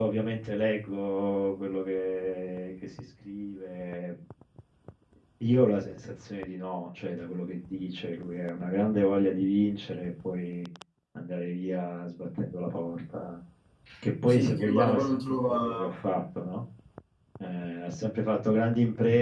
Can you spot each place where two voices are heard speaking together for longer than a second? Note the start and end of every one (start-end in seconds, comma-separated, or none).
14.3-15.9